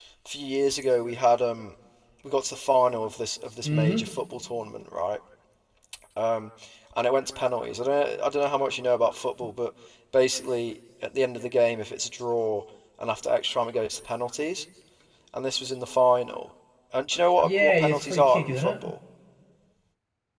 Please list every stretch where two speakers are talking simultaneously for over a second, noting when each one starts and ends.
17.4-18.8

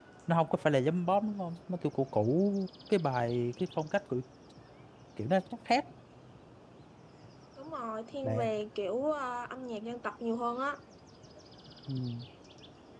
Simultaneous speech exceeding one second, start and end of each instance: none

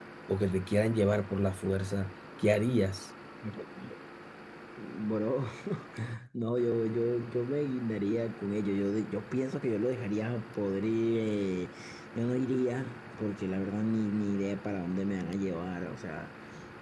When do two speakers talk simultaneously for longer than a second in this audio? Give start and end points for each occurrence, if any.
none

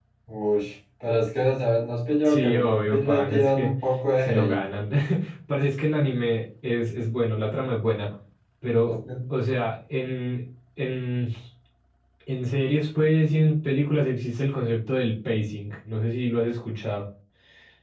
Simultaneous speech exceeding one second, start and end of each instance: 2.2-3.7

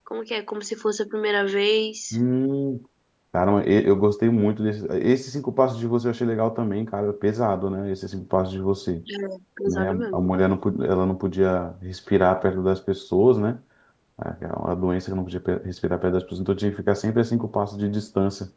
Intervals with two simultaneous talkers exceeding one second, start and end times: none

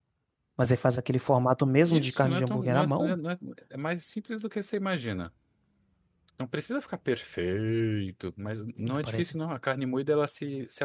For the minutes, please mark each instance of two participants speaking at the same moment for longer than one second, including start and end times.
1.9-3.2

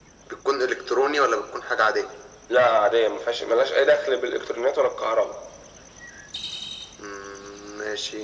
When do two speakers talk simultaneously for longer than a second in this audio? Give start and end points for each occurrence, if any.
none

